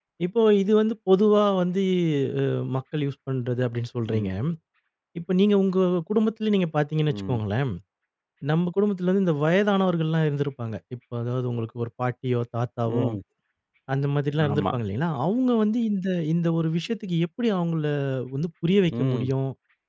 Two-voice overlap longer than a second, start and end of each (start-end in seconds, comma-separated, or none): none